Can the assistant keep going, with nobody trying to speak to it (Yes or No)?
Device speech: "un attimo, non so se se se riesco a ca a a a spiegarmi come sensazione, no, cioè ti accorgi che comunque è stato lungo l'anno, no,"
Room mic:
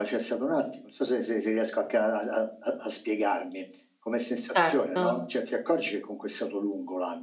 No